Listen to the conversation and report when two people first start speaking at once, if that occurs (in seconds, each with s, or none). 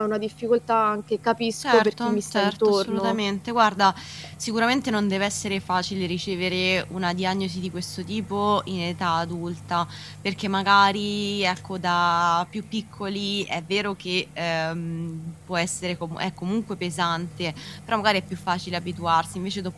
1.6 s